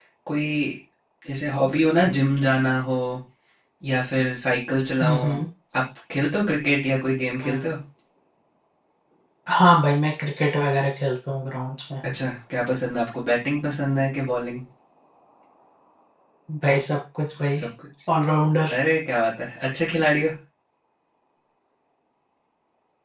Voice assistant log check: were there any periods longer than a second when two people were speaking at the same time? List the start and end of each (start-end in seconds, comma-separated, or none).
none